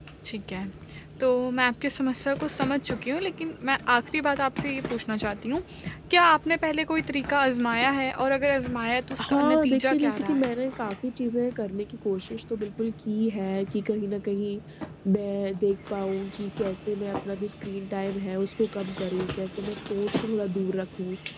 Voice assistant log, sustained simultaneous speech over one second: present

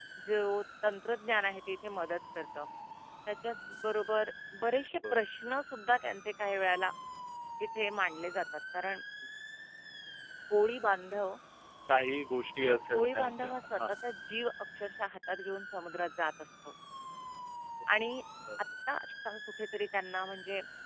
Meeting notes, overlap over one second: present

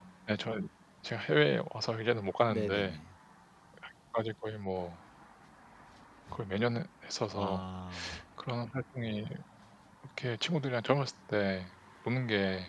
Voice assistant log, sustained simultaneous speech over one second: none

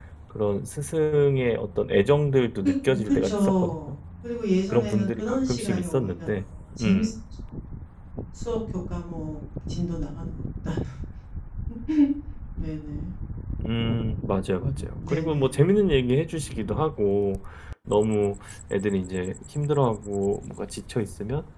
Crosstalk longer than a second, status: present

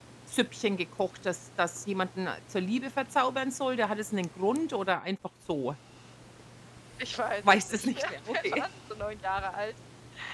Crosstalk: present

